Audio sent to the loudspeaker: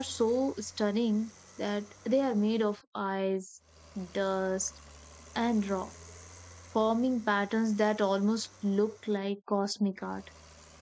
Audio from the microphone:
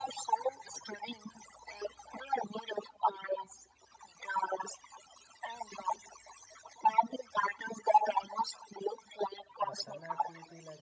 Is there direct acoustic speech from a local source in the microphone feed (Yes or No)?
Yes